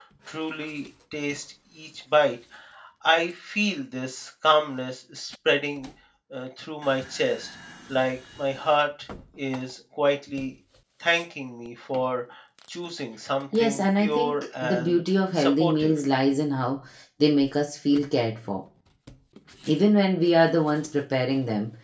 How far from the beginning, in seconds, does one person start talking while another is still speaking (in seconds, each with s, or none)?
13.5 s